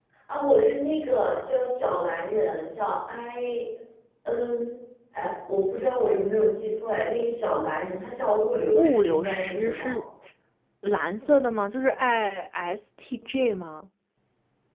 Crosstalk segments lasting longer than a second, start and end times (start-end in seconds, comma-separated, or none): 8.7-10.0